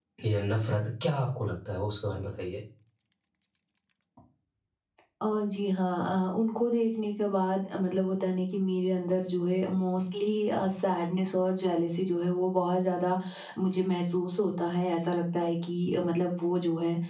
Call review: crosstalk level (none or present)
none